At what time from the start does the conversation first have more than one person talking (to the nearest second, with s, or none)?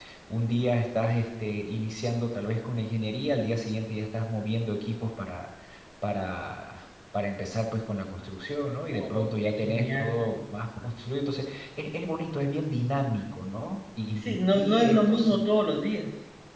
9 s